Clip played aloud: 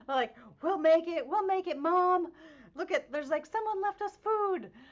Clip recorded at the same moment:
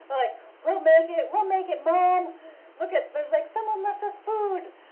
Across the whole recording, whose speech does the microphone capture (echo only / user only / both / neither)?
echo only